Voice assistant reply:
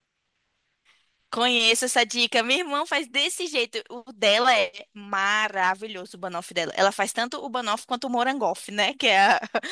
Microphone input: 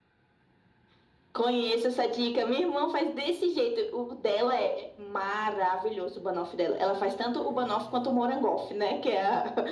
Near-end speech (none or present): none